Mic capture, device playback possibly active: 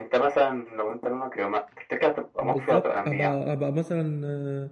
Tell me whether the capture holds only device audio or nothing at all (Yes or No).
No